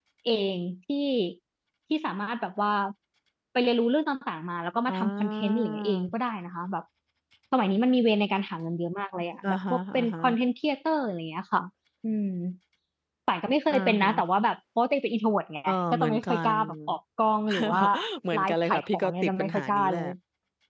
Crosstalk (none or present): present